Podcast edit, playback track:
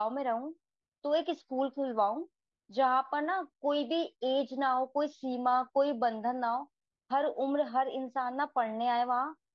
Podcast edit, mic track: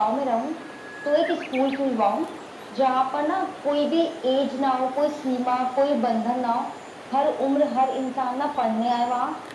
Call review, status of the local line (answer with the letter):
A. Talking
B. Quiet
B